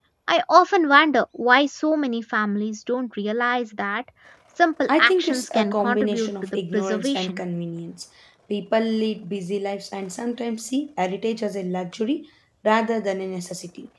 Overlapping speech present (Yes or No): Yes